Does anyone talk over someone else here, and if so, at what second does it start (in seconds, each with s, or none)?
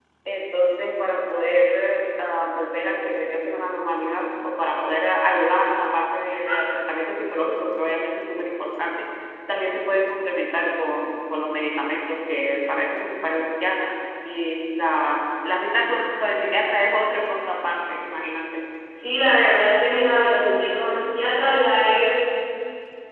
none